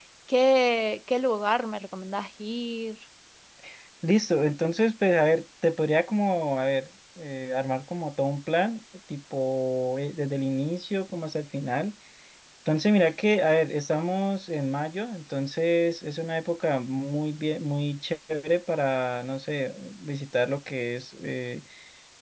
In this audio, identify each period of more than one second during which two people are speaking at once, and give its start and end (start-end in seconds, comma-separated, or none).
none